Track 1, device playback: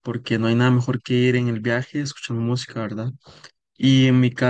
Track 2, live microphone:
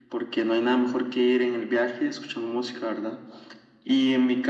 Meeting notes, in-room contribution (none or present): none